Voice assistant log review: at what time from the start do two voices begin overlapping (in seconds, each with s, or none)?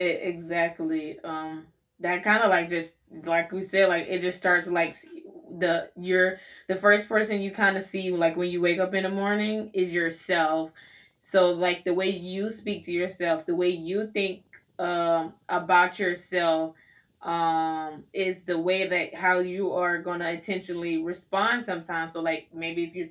none